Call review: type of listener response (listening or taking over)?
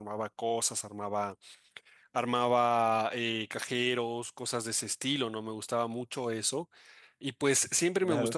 listening